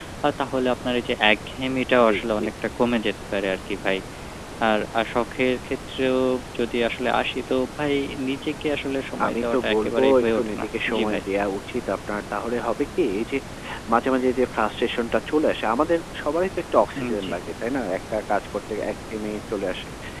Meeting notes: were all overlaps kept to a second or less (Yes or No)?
No